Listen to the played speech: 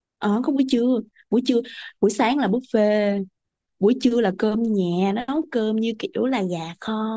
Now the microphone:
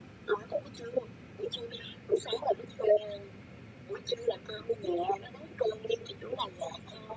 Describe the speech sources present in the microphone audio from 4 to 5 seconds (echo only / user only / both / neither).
echo only